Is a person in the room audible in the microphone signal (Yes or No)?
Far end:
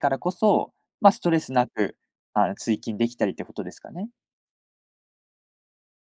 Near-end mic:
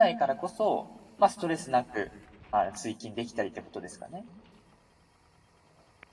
No